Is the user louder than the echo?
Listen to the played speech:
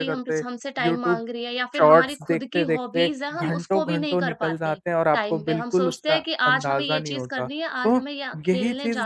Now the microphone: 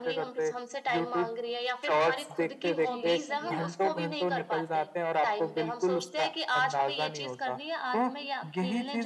No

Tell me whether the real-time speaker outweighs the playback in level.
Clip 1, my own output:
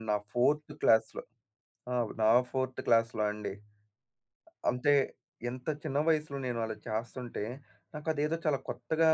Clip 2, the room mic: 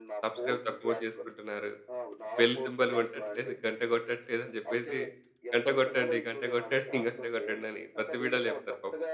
Yes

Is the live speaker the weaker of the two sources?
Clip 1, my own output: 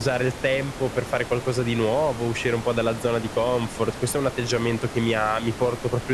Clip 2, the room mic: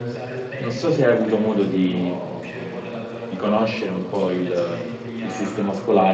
No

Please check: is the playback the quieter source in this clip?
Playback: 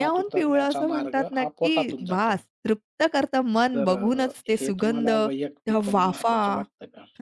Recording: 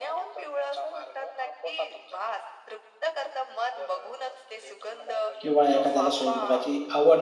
Yes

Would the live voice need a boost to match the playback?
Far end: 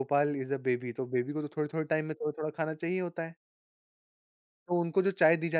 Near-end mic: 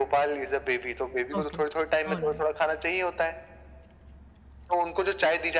Yes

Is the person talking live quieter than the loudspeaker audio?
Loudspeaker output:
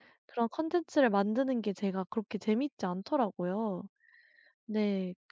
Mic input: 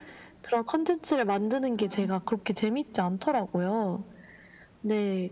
Yes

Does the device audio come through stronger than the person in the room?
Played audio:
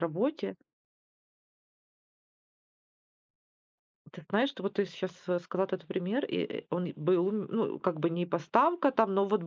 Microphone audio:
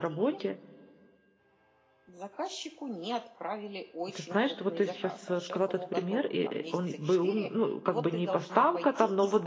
Yes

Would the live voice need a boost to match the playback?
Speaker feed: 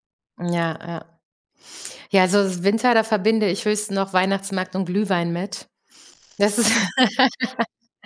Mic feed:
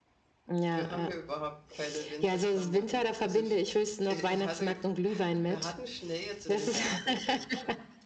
Yes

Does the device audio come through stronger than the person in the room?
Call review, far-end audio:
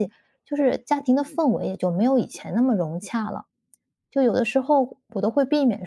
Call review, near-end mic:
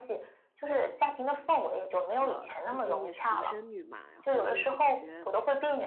Yes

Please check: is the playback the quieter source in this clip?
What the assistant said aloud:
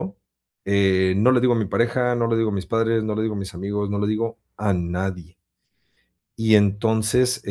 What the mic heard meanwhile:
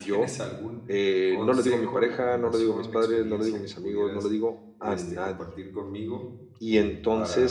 No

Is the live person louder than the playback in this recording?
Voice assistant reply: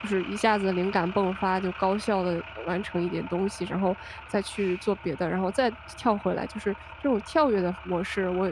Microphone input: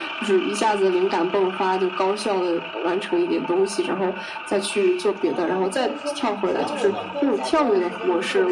No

